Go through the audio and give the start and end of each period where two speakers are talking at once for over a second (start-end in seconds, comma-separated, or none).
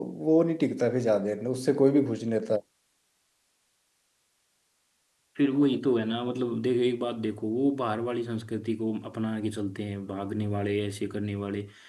none